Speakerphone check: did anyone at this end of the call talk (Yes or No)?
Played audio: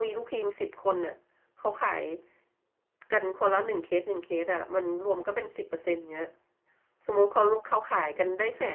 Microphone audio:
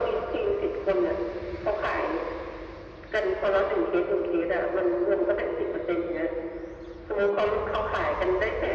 No